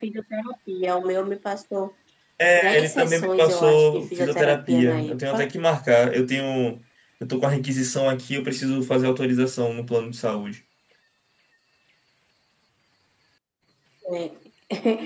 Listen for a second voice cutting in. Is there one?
Yes, from 2.6 s

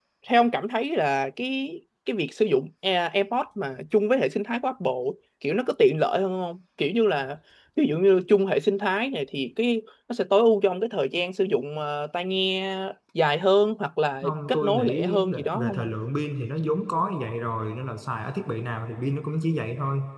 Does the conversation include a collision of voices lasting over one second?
Yes, from 14.2 s

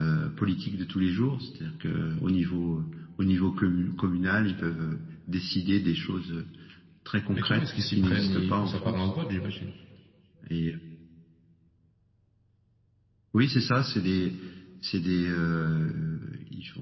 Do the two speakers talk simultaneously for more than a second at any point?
Yes, from 7.3 s

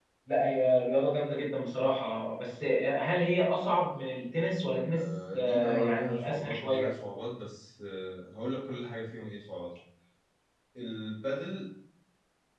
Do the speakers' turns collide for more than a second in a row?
Yes, from 4.9 s

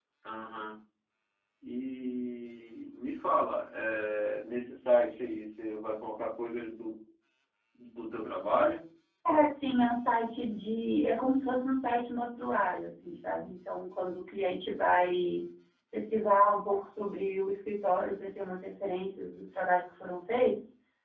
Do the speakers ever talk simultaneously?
No

